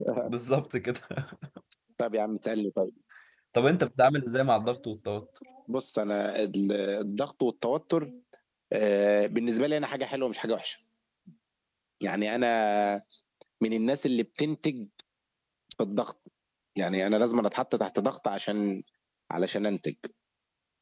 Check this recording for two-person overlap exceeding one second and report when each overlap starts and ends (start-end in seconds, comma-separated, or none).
none